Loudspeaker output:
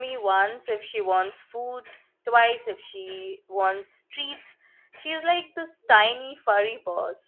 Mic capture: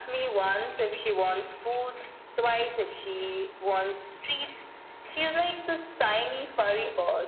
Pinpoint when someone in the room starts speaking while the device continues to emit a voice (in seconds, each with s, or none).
none